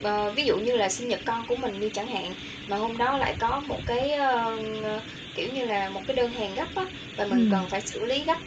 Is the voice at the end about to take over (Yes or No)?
No